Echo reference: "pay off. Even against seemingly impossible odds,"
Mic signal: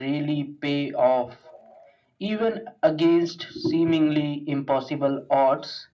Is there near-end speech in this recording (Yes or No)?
No